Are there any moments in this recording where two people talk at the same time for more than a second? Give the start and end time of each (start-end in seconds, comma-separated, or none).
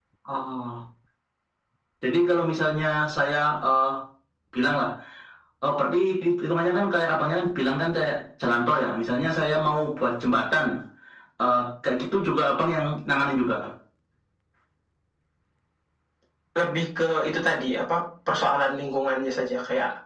none